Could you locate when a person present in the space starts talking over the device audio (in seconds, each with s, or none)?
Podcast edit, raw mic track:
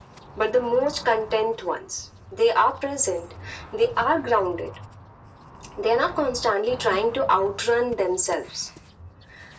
none